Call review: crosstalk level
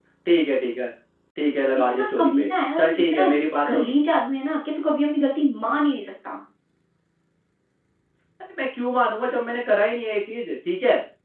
present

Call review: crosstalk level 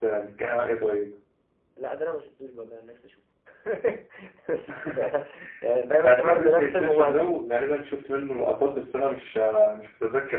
present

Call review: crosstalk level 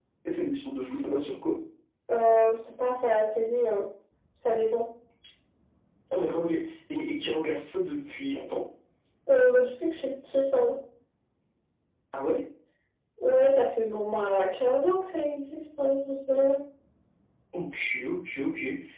none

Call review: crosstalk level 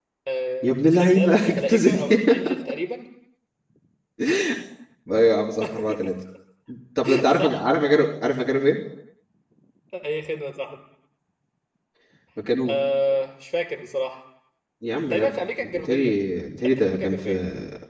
present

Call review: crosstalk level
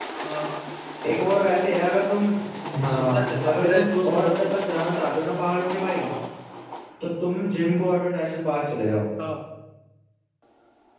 present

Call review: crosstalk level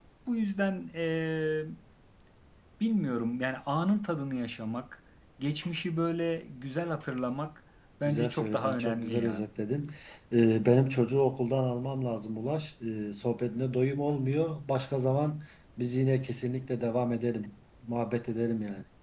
present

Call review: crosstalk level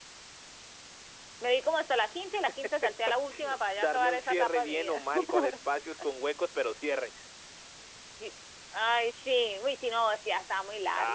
present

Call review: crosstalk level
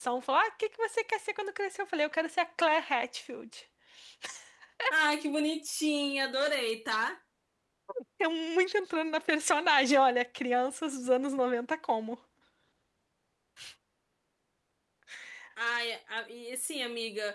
none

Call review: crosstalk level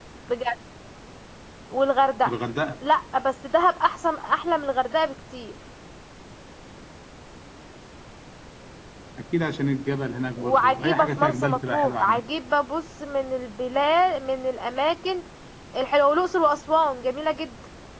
present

